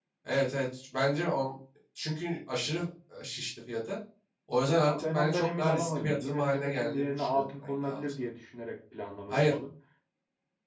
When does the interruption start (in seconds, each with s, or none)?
4.8 s